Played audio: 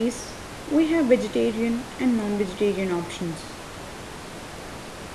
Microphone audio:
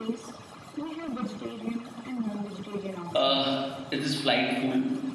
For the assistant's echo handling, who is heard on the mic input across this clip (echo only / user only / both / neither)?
both